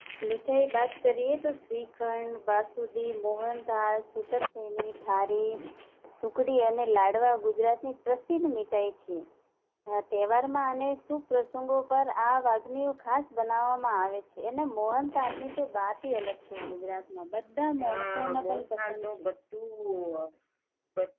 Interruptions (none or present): present